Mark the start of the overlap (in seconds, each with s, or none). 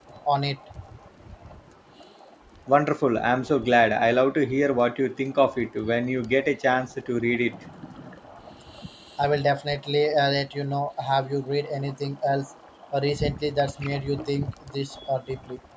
none